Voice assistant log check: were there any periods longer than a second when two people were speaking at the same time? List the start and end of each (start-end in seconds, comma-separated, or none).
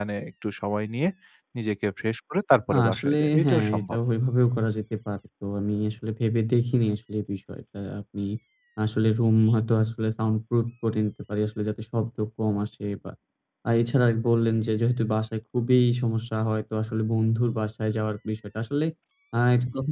2.7-4.0